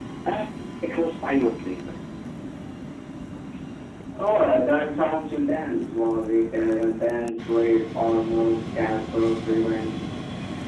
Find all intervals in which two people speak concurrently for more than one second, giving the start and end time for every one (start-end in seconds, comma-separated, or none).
none